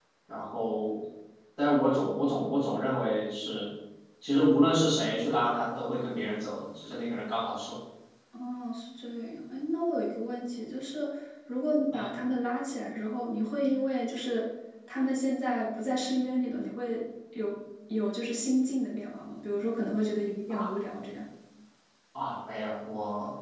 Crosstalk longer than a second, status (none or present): none